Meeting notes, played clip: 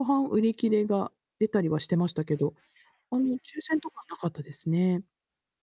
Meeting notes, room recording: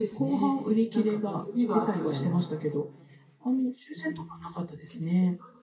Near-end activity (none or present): present